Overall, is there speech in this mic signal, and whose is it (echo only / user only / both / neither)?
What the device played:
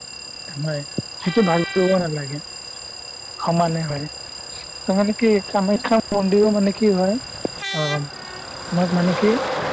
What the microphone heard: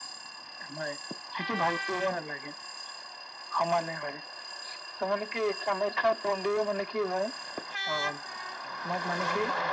both